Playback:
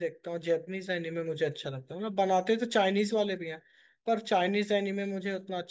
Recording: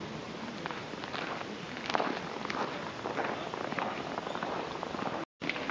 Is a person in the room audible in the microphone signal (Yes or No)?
No